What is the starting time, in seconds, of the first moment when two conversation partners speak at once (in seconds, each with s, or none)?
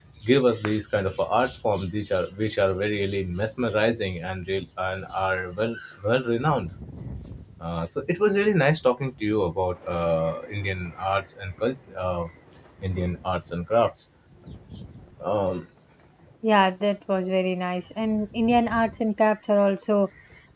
none